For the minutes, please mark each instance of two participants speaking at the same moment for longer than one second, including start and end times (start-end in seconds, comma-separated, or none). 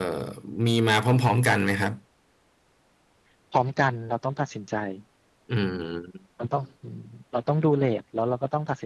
none